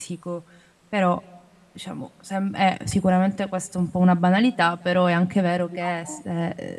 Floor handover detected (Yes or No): No